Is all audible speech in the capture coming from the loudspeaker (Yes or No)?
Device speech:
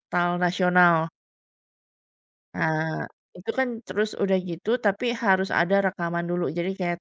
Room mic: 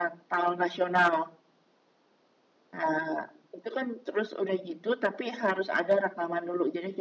Yes